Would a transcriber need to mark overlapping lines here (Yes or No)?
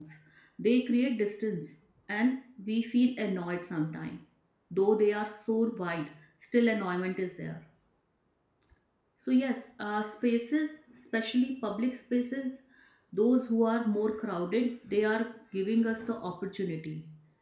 No